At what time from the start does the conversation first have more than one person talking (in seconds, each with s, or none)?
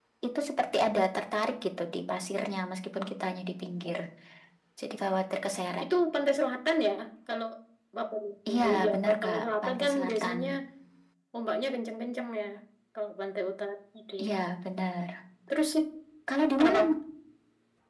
8.7 s